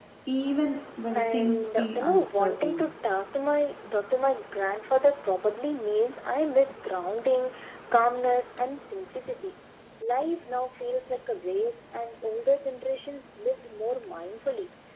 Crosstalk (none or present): present